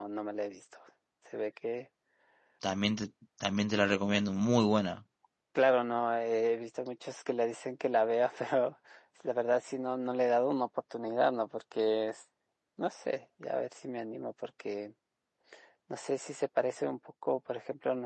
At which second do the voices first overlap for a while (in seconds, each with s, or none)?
none